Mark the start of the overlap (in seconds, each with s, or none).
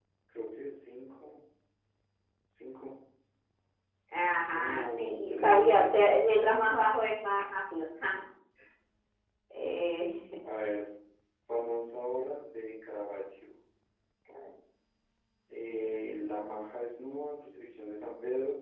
4.5 s